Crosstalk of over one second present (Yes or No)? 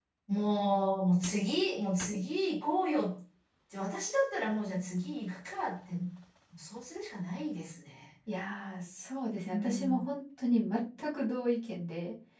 No